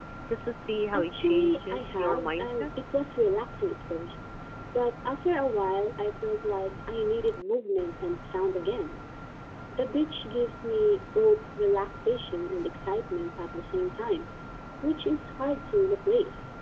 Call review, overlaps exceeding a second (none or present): present